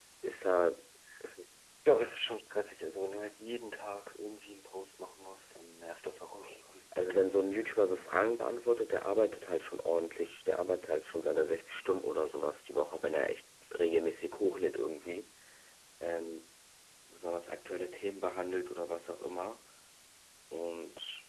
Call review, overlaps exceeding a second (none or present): none